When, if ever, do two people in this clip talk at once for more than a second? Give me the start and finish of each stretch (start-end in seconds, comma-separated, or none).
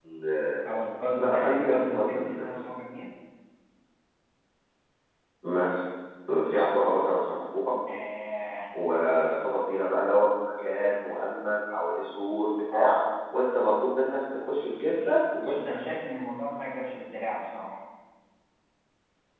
1.2-2.6